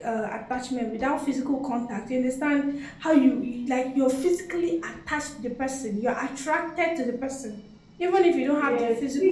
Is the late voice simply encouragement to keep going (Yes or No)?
No